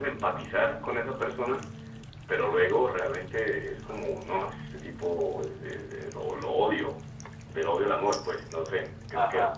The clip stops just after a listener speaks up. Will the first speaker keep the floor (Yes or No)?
No